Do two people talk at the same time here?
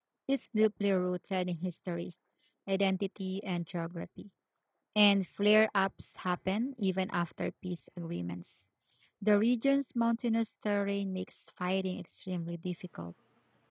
No

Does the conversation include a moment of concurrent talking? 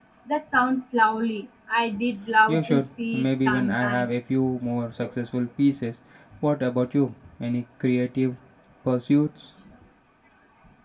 Yes, from 2.5 s

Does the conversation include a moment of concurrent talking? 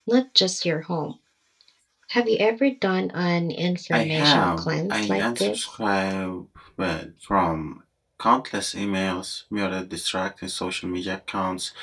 Yes, from 3.9 s

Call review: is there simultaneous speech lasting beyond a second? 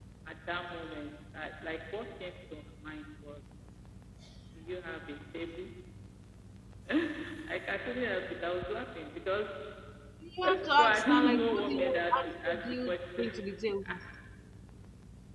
Yes, from 10.4 s

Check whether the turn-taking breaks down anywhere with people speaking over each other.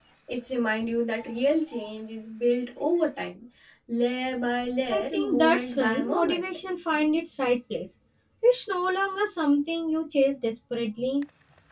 Yes, from 4.9 s

